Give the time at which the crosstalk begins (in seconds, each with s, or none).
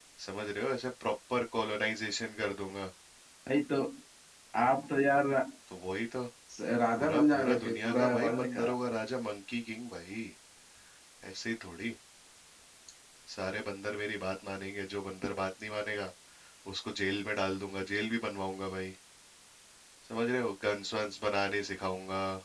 7.0 s